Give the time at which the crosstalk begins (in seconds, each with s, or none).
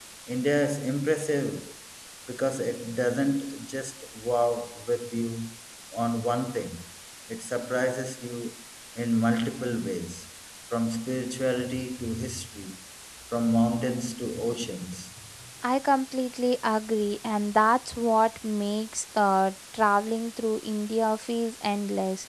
none